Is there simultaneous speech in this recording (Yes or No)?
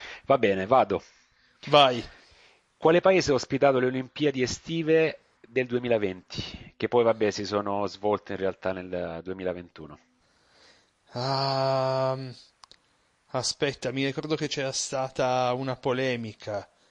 No